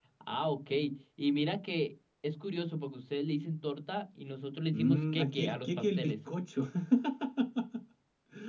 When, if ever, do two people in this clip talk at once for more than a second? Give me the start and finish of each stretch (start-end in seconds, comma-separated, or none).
4.7-6.1